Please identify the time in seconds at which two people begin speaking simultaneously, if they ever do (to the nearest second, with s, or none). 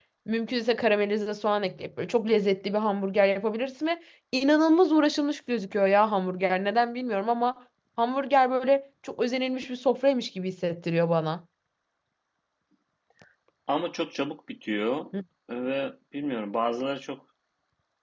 none